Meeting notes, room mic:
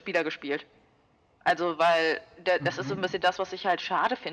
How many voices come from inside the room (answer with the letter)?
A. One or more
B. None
A